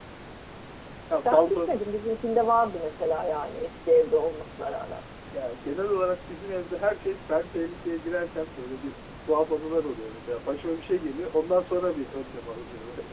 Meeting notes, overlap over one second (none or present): none